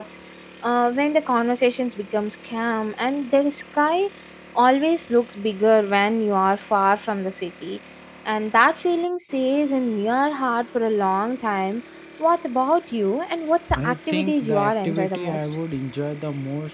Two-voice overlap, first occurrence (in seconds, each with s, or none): 13.7 s